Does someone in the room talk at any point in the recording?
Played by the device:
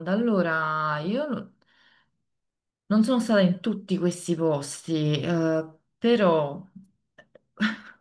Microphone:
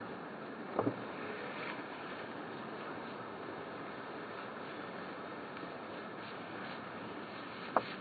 No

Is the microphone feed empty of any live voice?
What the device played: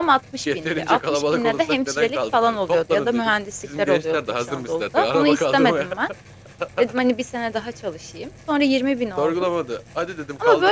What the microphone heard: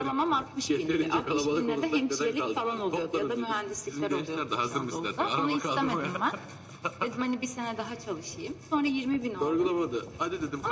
Yes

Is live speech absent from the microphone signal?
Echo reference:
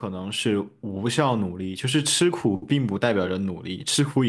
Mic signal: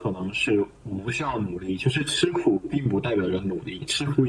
Yes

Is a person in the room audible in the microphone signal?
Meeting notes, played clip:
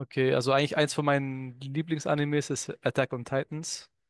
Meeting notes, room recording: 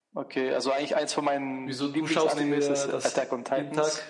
Yes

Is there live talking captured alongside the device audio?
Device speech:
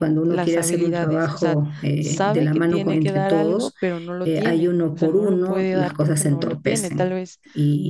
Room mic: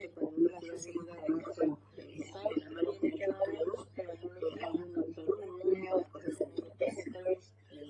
No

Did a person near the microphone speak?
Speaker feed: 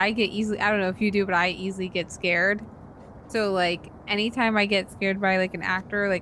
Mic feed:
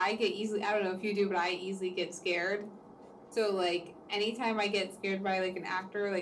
No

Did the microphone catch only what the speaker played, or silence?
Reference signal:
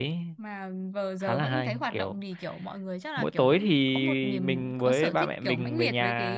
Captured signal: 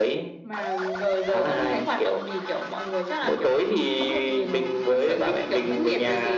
Yes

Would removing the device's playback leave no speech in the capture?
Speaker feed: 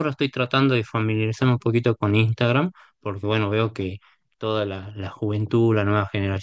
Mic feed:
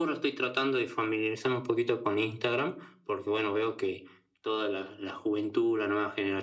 Yes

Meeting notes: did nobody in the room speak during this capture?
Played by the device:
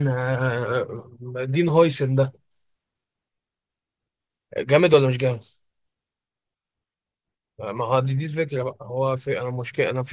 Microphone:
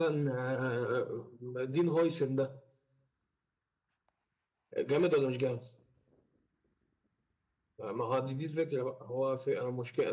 Yes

